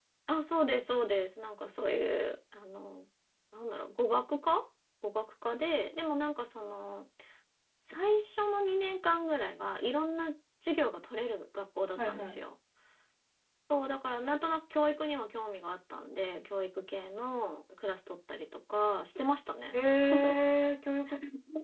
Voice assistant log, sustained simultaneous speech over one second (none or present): none